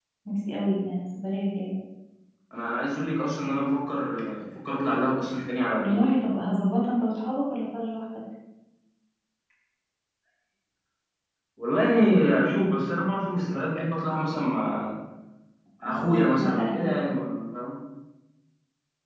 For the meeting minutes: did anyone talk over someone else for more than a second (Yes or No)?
Yes